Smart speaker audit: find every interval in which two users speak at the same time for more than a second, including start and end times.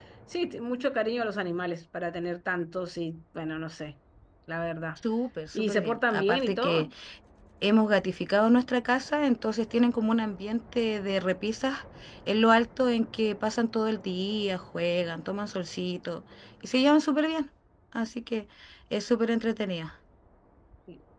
5.5-6.9

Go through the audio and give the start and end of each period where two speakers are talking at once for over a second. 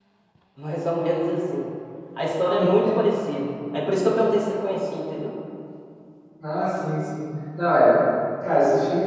none

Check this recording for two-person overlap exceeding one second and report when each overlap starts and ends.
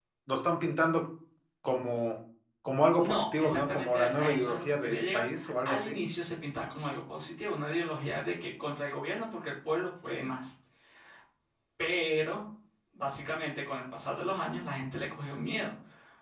3.0-6.0

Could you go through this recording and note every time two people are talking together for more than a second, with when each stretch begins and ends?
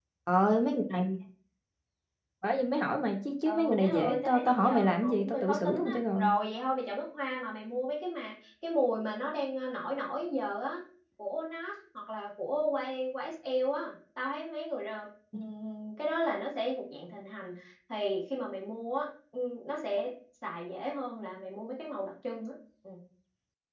3.4-6.3

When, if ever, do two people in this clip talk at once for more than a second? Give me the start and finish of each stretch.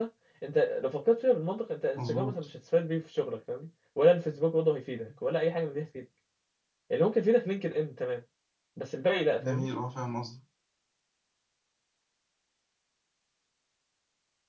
none

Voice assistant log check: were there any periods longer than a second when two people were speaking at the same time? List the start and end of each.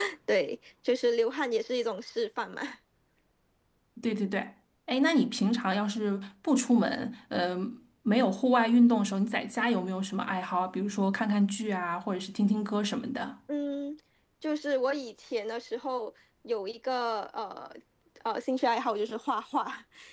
none

